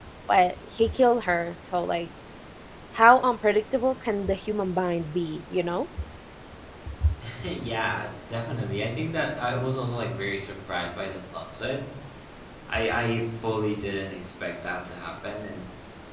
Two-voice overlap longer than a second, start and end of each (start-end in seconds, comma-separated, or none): none